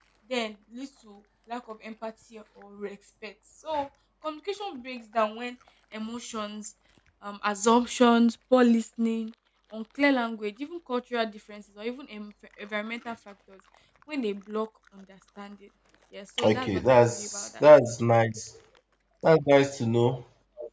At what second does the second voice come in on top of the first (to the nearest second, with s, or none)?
16 s